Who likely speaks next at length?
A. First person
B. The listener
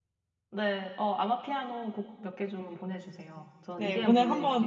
B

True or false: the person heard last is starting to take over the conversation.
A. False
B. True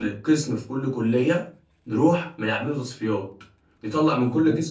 A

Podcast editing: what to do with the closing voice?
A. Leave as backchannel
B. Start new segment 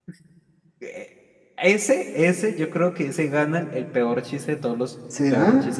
A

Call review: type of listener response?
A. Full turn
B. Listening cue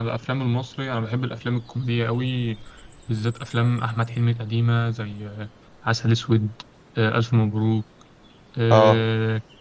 B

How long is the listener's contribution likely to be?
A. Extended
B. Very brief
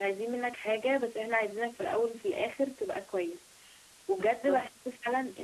B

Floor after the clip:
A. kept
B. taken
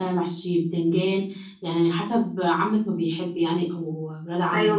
B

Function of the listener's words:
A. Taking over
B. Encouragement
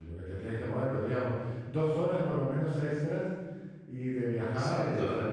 A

